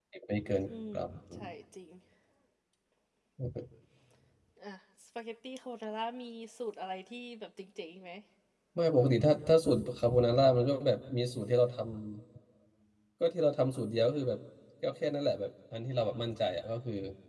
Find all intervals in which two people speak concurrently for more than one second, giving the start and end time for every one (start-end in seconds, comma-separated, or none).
none